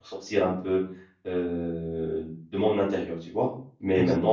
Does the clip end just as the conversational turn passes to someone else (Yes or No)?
No